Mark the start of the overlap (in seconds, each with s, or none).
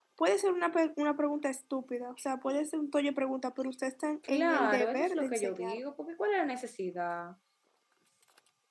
4.2 s